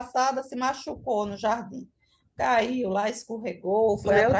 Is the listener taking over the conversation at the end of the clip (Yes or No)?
No